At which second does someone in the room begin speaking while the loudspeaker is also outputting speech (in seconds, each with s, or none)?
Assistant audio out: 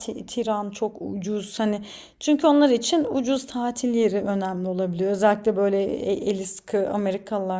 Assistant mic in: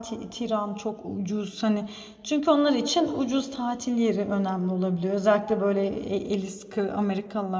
none